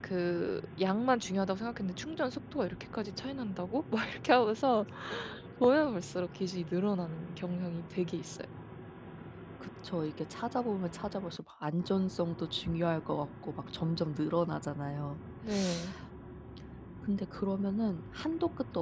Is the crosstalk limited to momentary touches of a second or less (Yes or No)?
Yes